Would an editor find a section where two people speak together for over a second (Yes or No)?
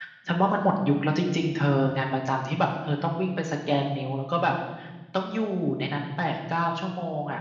No